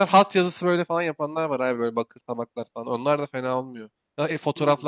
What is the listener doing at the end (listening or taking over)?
taking over